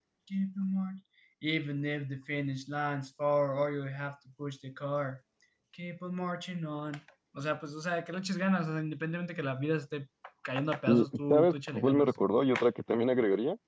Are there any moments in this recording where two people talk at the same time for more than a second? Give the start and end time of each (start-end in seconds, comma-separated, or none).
10.9-12.1